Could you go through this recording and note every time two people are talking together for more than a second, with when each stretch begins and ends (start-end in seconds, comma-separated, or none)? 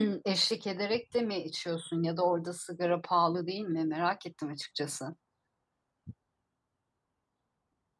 none